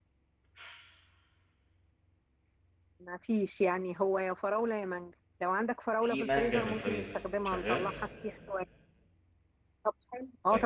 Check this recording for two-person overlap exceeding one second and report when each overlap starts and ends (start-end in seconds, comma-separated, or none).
6.0-7.9